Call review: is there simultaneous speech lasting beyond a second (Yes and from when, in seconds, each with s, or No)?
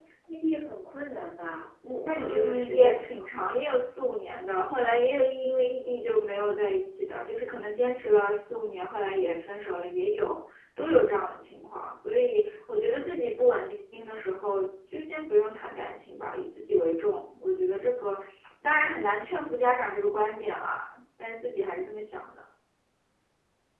Yes, from 2.1 s